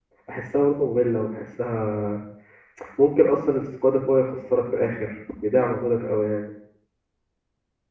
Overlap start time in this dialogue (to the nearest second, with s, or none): none